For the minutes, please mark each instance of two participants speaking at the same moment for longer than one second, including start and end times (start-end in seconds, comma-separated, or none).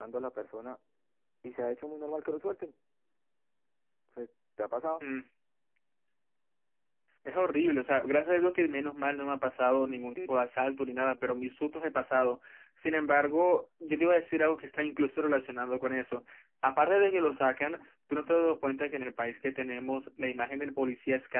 none